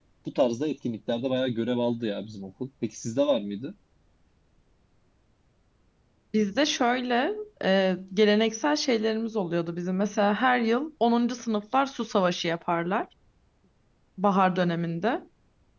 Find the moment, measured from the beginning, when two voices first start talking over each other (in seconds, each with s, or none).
none